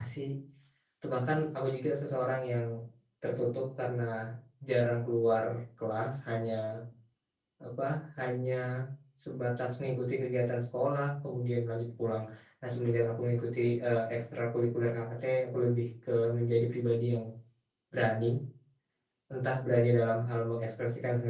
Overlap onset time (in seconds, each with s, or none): none